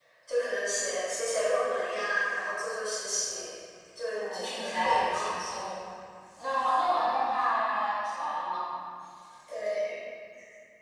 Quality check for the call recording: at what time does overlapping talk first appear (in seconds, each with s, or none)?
4.2 s